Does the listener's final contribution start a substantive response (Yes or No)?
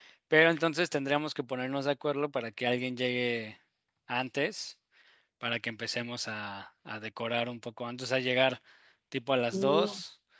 No